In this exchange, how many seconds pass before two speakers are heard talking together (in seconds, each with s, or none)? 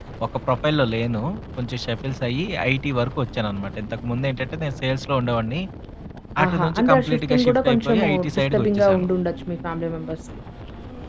6.4 s